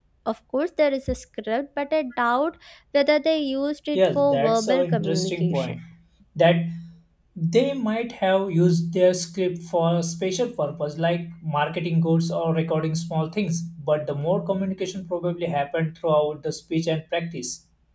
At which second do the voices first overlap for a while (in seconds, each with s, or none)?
4.0 s